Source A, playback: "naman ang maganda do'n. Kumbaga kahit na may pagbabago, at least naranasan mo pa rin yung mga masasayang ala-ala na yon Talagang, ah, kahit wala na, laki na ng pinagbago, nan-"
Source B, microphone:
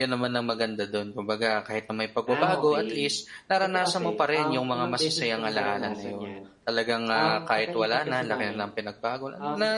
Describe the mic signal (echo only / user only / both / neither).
both